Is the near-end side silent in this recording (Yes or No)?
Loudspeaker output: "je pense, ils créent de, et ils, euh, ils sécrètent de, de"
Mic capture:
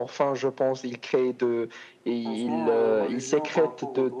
No